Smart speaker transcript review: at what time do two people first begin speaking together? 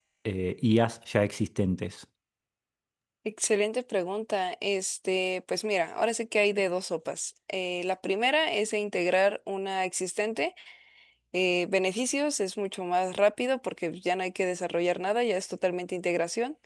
none

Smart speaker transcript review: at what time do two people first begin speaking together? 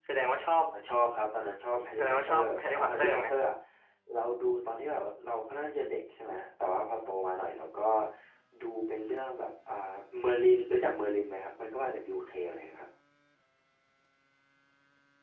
2 s

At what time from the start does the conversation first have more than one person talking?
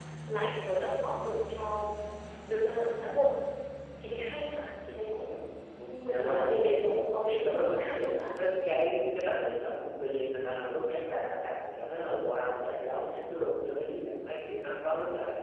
6 s

